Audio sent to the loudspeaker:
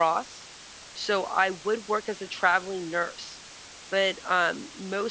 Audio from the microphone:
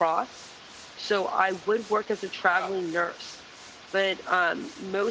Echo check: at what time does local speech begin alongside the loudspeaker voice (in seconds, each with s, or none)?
2.4 s